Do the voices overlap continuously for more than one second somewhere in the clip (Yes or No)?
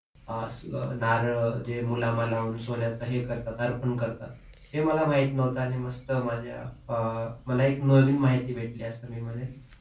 No